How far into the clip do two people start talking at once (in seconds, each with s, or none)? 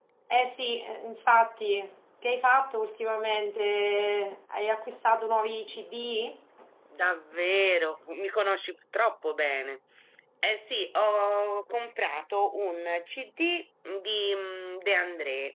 none